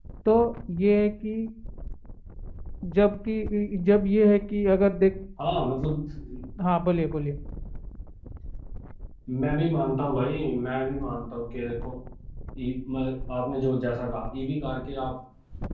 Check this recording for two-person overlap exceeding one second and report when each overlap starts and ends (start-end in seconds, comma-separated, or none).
none